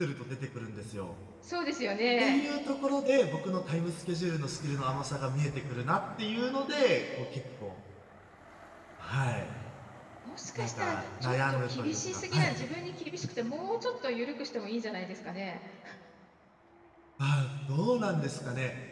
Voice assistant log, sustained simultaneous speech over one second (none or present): present